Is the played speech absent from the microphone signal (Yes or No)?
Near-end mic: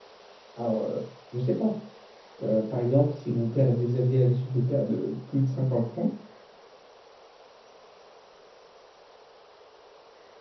Yes